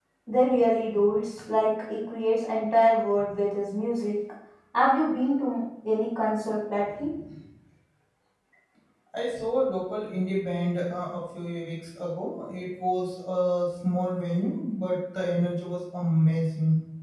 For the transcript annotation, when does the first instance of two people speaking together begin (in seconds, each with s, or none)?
none